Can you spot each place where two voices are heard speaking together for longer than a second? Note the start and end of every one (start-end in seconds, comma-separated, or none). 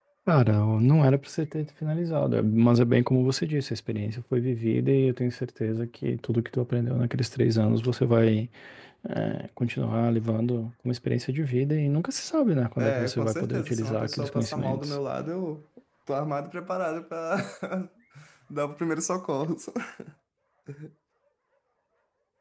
12.8-14.9